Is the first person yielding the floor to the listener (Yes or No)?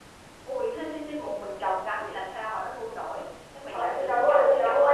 Yes